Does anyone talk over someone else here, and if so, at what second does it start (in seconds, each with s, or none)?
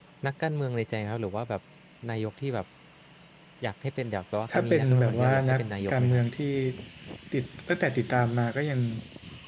4.5 s